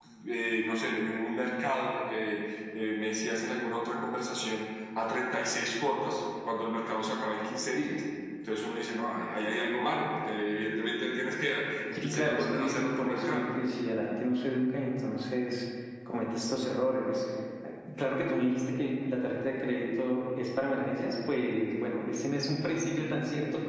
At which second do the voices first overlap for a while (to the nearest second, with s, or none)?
12 s